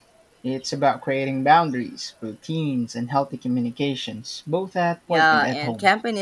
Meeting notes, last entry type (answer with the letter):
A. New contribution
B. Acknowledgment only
A